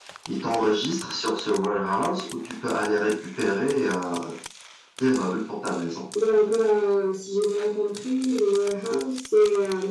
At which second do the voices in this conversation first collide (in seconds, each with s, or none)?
none